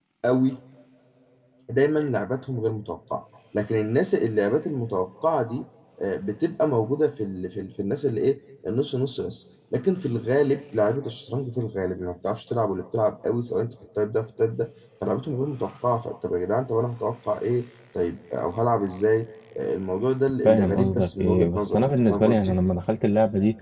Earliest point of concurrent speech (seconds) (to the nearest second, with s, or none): 20 s